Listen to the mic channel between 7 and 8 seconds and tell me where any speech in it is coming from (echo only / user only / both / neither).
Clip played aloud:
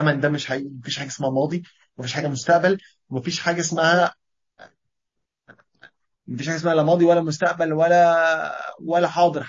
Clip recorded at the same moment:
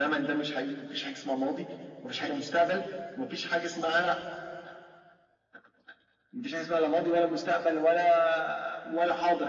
echo only